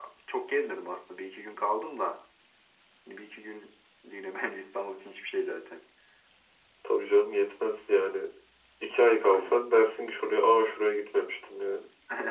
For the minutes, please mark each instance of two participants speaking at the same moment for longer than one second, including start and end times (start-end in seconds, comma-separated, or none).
none